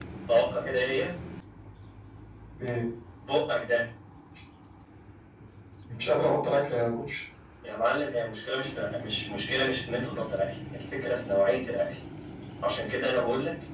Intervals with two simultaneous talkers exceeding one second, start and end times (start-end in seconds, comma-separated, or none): none